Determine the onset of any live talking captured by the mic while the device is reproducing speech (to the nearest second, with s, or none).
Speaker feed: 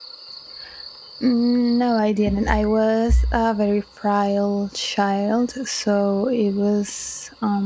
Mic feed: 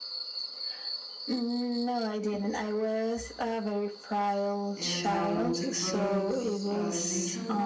5 s